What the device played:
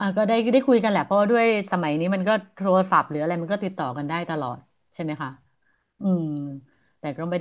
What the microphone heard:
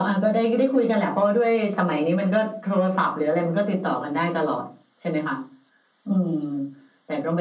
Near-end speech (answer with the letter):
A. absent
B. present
A